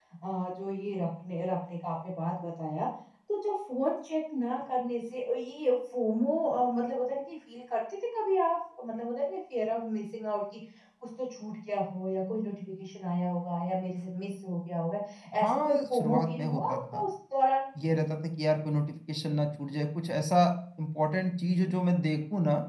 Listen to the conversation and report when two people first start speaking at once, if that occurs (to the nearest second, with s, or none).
15 s